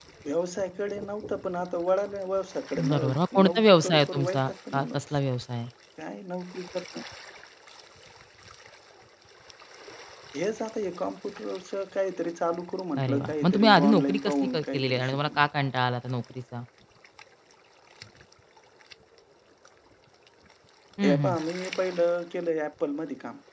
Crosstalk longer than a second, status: present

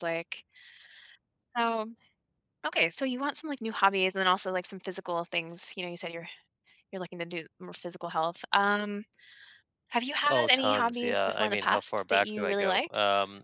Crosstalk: present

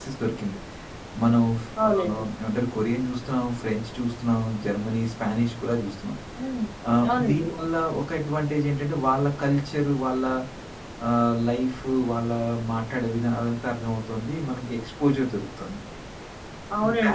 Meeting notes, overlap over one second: none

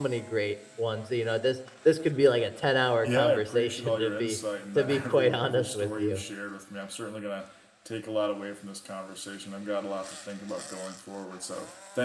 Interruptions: present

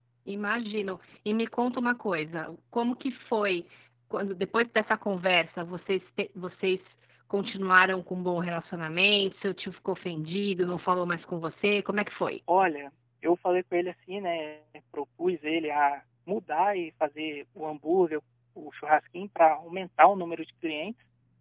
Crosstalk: none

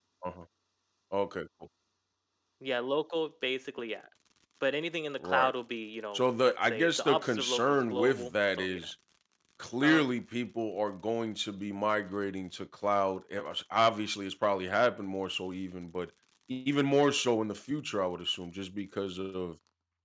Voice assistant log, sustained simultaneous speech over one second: present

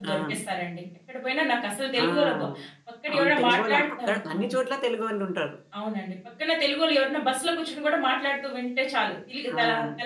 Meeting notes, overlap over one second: present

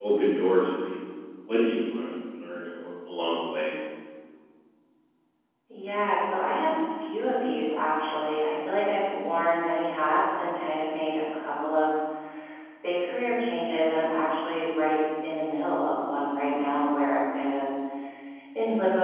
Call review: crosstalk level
none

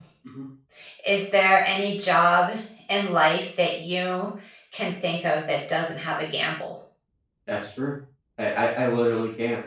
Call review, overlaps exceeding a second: none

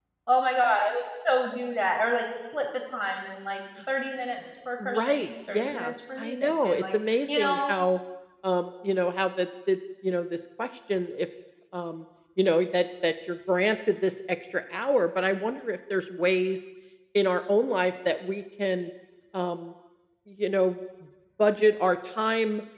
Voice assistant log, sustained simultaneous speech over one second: present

